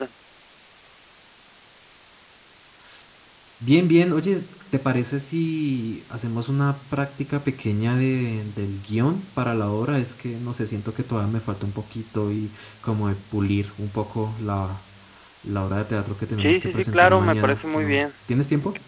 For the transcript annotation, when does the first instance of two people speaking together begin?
16.4 s

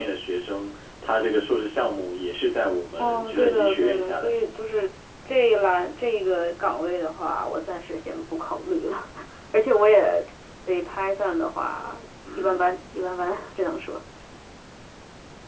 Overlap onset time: 3.0 s

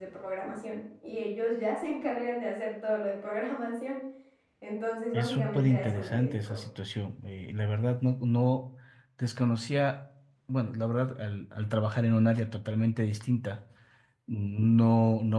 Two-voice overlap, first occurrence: 5.1 s

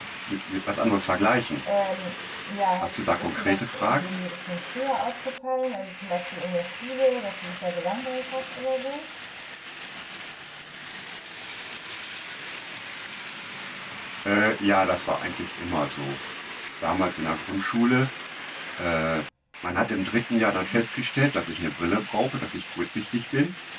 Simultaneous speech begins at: 2.8 s

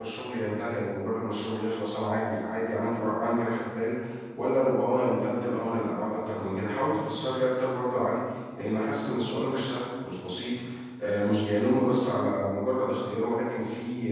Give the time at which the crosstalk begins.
none

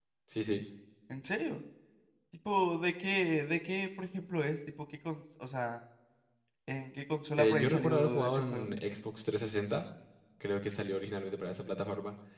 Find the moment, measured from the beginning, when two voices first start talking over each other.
7.4 s

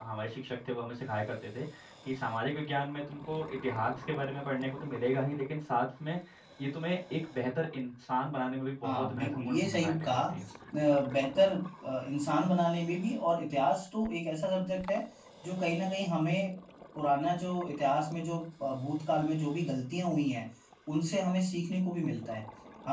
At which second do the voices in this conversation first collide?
8.8 s

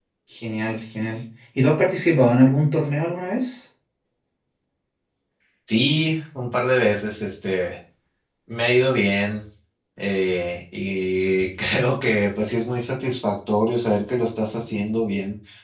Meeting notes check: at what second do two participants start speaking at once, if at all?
none

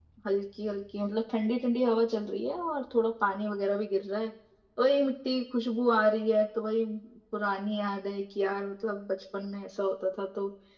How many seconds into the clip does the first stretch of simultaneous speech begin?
none

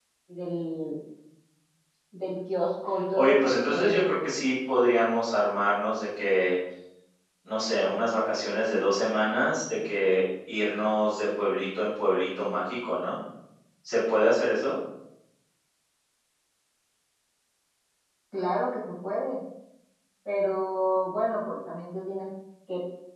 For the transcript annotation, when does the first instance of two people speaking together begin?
3.1 s

